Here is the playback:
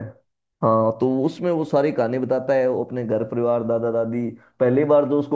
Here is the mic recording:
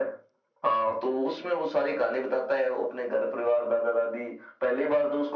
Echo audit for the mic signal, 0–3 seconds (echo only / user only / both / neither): echo only